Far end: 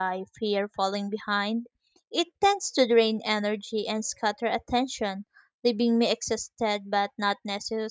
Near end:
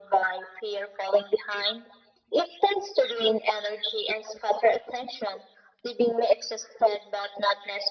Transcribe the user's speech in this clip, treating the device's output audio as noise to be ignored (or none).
none